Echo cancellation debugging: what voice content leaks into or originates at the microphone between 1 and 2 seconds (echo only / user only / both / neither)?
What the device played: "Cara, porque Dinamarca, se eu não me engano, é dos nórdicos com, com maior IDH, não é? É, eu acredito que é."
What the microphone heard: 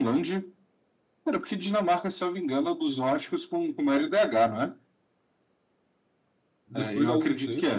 echo only